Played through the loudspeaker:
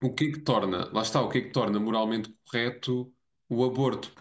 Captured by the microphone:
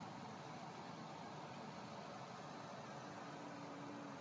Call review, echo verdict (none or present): none